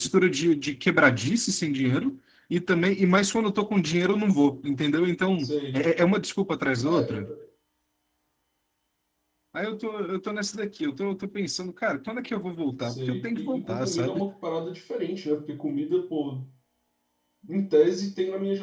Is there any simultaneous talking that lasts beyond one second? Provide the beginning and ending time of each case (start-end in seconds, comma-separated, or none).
12.8-14.2